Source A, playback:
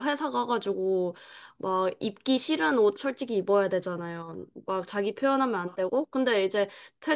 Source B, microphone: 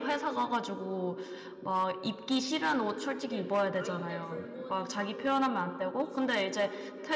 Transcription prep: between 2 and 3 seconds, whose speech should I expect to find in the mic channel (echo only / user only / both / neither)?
echo only